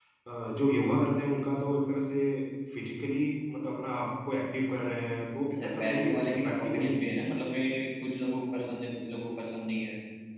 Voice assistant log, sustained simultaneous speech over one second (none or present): present